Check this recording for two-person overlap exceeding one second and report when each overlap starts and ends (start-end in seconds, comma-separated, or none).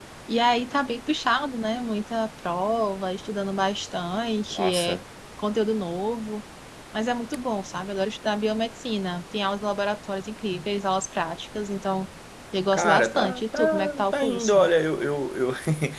12.7-14.7